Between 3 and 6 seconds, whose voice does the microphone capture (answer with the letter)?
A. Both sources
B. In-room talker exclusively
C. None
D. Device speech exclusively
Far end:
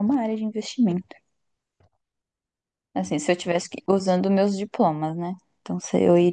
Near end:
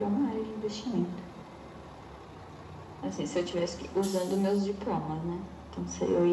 D